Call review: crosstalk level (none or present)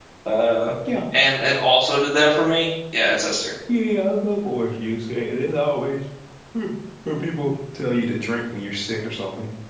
none